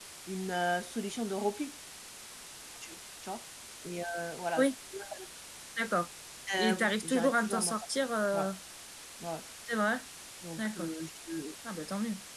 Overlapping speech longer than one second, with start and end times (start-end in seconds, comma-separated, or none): 6.6-7.8